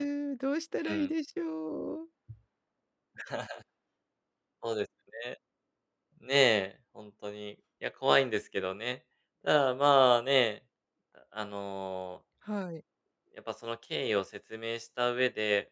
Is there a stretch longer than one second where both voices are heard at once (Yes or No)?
No